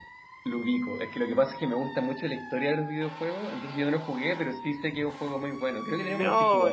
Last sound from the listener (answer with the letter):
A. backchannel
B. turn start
B